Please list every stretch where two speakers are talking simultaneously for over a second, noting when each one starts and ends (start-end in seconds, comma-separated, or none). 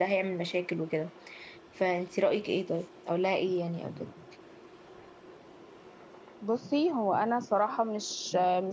none